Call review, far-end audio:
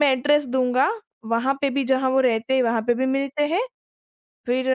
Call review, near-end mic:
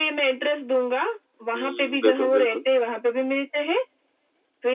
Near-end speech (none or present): present